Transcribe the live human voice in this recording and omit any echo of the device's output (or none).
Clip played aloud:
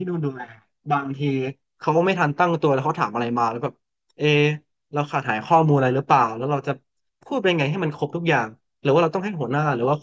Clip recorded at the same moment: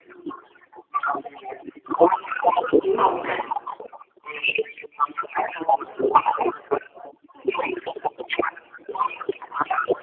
ปิ๊งมองนะ